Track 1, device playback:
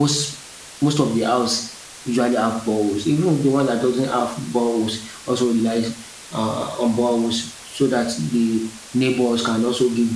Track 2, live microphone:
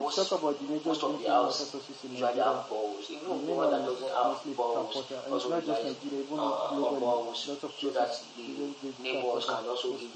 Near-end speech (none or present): present